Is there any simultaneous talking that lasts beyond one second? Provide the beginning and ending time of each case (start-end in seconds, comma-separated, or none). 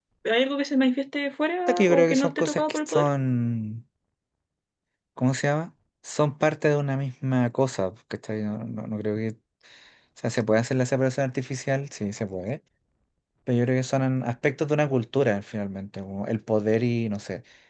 1.7-3.1